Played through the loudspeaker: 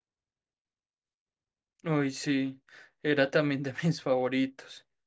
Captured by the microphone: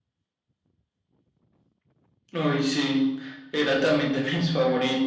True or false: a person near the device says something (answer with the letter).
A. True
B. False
B